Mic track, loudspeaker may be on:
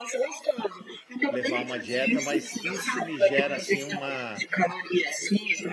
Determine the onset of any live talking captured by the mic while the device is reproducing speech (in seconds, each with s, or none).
1.3 s